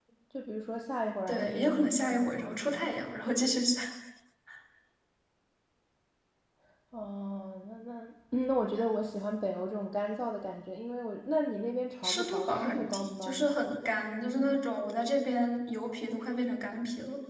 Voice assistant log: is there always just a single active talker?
No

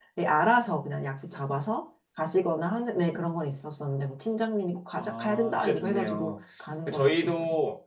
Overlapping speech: Yes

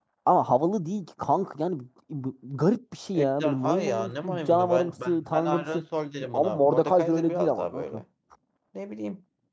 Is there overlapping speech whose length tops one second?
Yes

